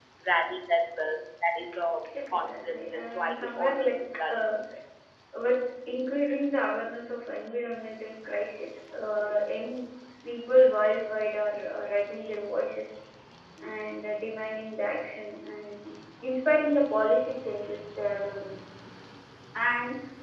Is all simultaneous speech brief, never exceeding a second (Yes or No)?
No